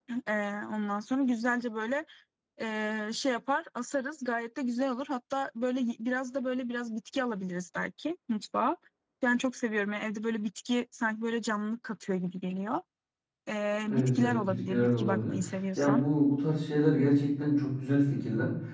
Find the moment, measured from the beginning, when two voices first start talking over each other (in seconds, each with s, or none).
13.9 s